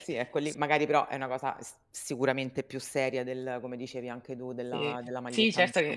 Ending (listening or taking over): taking over